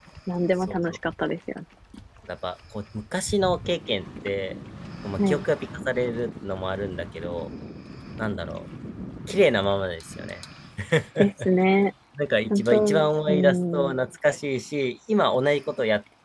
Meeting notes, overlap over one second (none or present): present